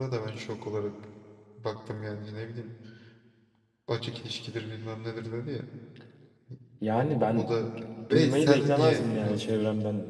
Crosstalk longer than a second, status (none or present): present